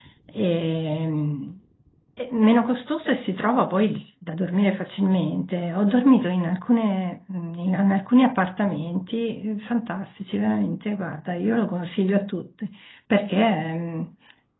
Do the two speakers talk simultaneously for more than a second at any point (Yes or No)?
No